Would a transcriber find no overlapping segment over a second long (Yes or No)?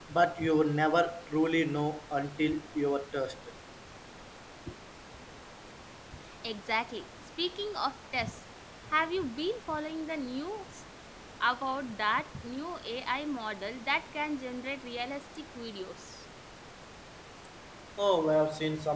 Yes